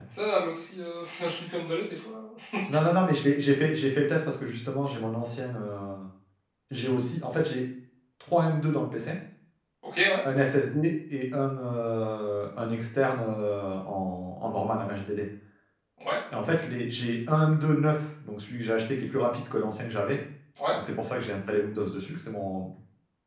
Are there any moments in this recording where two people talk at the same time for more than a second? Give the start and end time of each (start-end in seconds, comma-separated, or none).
none